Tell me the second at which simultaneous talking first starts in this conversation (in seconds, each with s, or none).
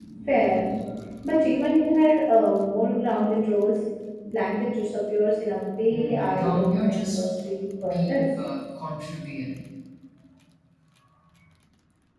5.9 s